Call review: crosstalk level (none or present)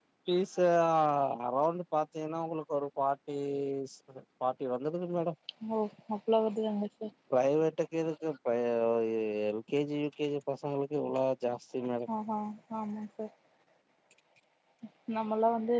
none